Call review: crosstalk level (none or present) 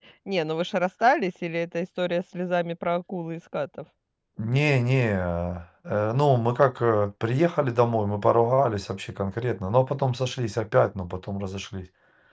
none